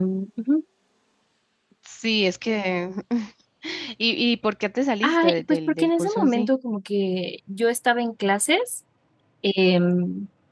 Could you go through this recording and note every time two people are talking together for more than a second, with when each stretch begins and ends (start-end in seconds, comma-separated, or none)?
5.0-6.5